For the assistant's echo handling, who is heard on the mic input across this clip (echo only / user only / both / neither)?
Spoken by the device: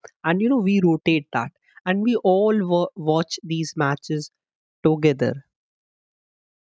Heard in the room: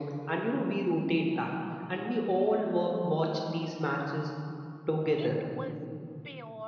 both